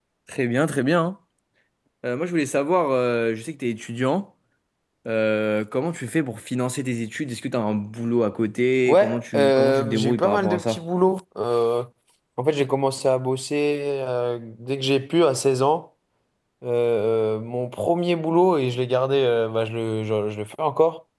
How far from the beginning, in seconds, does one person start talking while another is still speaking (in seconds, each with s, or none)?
8.9 s